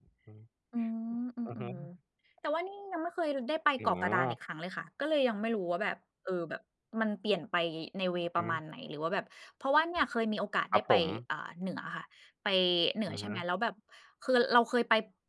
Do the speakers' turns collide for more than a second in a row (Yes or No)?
No